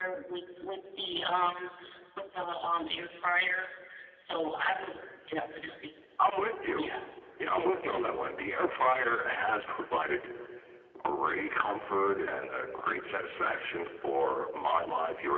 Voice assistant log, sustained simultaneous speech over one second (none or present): none